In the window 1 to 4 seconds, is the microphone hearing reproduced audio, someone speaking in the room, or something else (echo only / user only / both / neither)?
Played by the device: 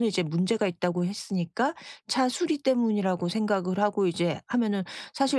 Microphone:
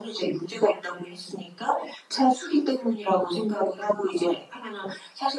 echo only